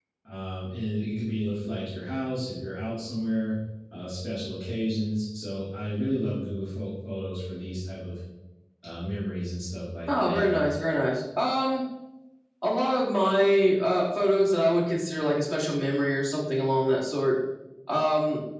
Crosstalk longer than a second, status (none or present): none